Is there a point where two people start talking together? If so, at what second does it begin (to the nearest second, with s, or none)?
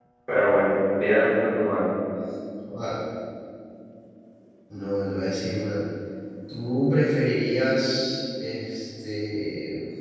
none